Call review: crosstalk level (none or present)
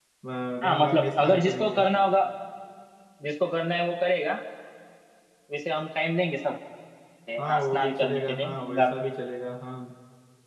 present